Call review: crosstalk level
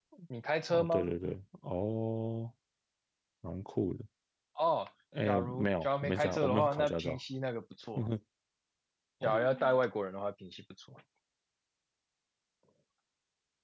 present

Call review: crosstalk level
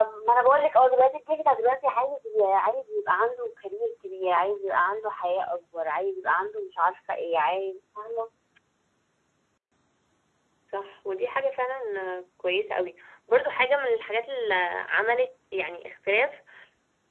none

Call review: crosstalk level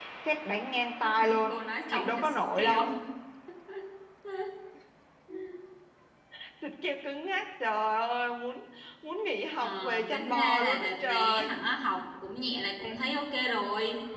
present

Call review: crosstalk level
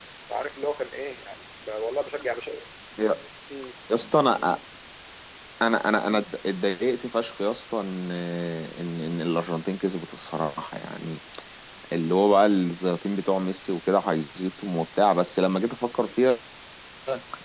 none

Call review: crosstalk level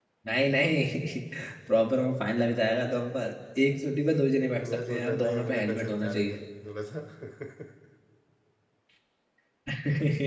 present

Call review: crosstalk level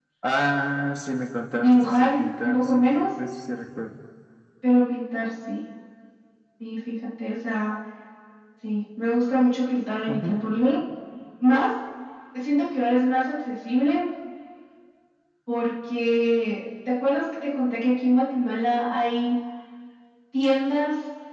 present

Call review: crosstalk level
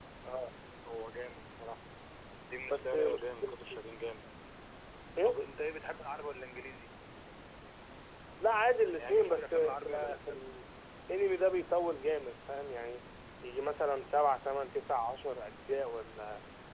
present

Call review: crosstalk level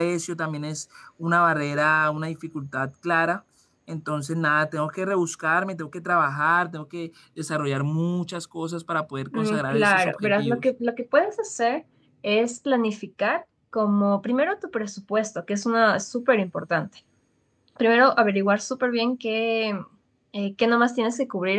present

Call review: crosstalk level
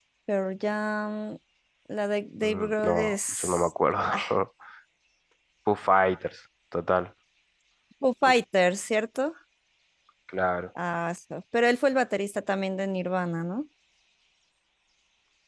present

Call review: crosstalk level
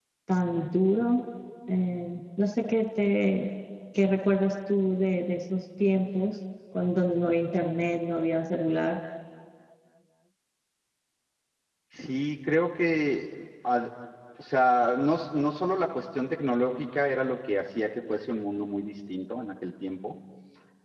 none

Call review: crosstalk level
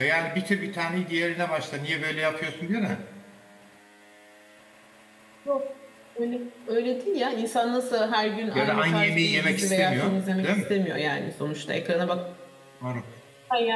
present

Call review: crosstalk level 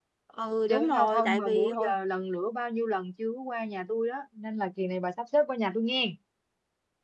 present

